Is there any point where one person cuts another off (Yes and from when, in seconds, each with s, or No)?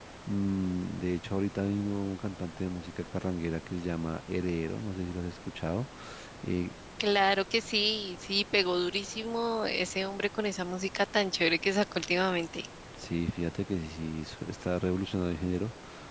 No